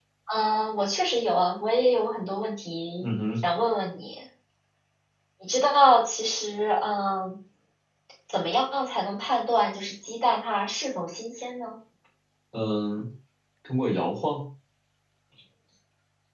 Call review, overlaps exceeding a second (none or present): none